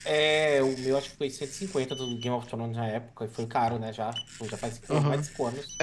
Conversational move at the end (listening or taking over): taking over